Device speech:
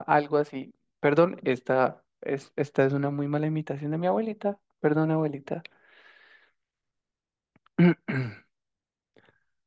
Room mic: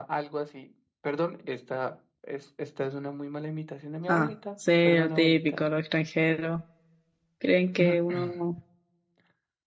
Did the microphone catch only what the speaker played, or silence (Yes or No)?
No